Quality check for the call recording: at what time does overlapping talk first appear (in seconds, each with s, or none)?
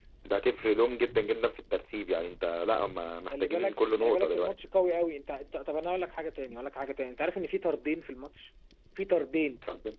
3.3 s